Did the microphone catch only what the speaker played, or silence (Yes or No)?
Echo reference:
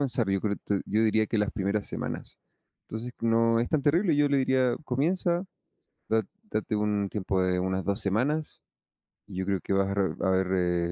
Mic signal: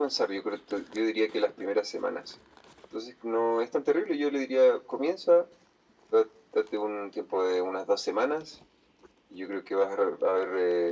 Yes